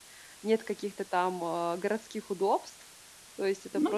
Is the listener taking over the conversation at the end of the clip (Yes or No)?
No